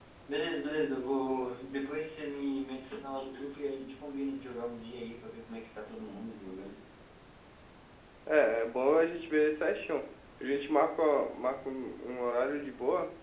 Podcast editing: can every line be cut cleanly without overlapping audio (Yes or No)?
Yes